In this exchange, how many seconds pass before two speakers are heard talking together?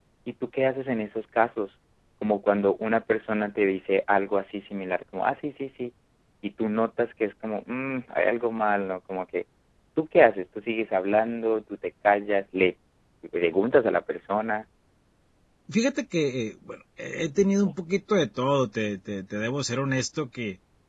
none

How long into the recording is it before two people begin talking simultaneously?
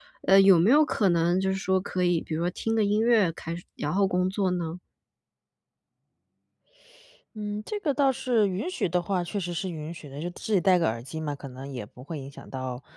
none

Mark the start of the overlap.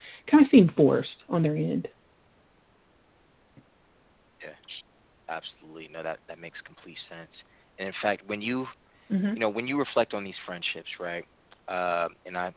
none

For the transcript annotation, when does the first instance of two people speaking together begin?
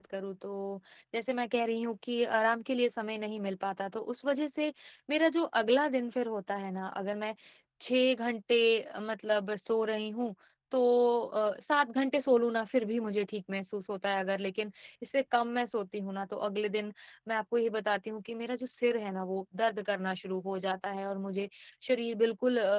none

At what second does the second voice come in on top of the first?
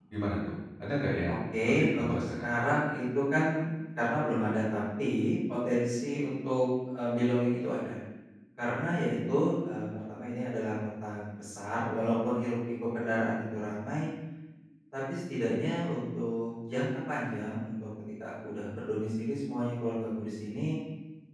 1.3 s

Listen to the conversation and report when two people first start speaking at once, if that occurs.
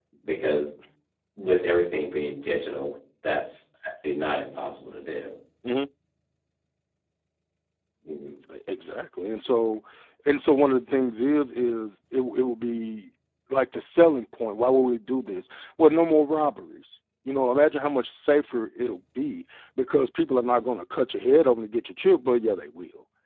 none

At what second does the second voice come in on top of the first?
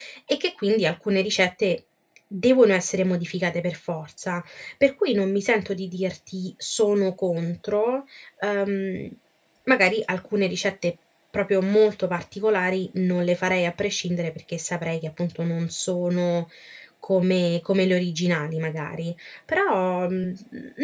none

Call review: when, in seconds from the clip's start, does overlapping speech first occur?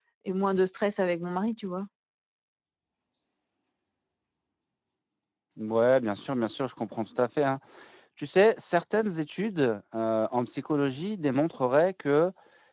none

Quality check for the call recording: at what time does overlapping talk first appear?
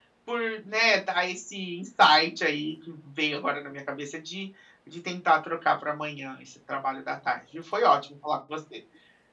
none

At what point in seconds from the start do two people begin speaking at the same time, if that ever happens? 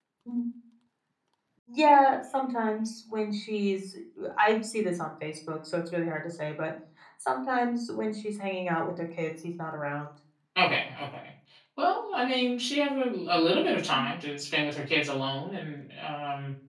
none

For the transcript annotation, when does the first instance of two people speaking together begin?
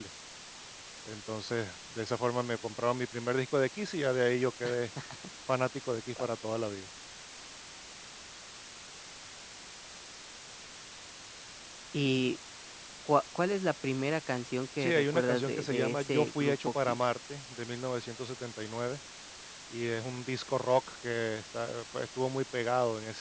14.8 s

